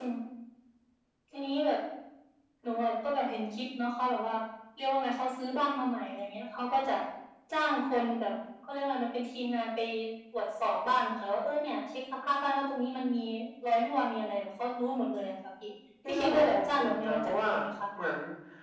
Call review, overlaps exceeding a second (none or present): present